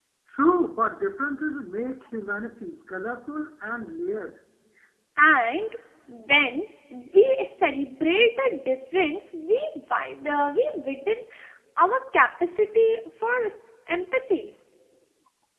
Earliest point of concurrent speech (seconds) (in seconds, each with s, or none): none